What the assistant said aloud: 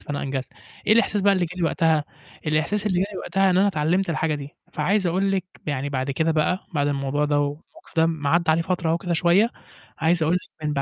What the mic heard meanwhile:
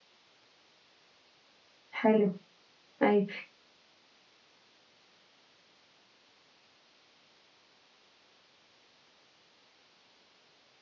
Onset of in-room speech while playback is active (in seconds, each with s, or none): 1.9 s